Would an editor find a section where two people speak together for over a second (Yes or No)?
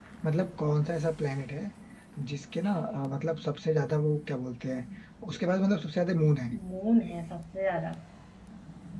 No